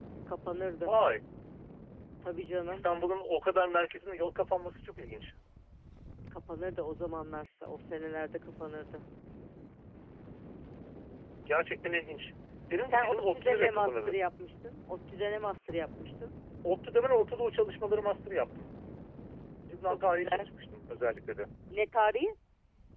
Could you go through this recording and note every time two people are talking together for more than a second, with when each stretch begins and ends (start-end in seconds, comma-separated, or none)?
12.8-14.1